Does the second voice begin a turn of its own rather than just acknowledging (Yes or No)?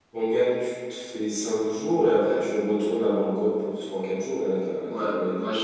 Yes